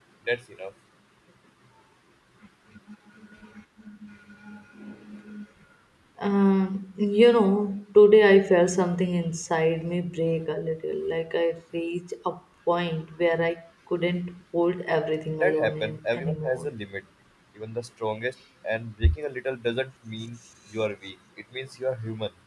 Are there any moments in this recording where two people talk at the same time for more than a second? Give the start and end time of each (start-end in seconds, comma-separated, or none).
15.4-16.7